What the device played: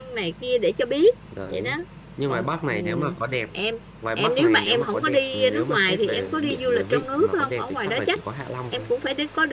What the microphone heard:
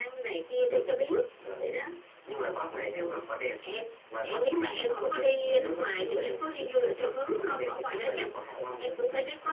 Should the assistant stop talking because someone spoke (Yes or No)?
No